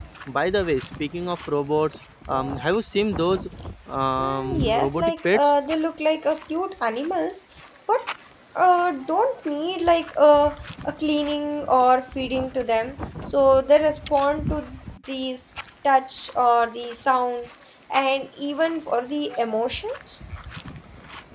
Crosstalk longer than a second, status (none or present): present